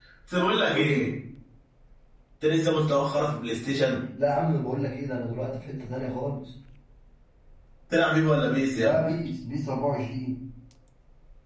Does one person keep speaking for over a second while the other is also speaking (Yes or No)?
No